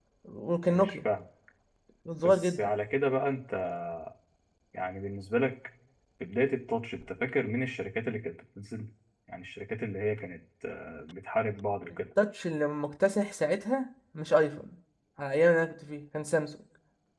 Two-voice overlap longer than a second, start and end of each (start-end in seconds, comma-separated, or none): none